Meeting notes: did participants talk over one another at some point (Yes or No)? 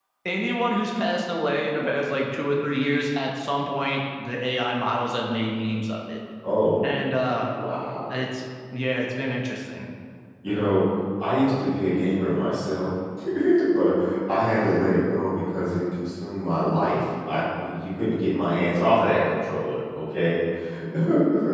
No